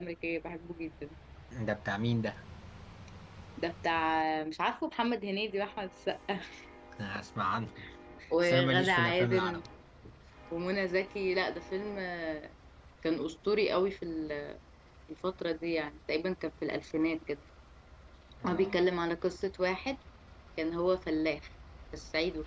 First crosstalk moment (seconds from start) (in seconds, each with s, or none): 8.4 s